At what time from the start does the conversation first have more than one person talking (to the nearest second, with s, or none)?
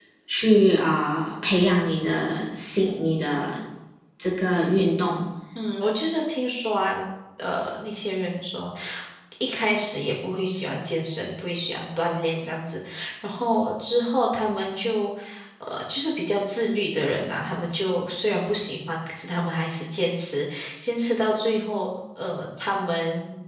none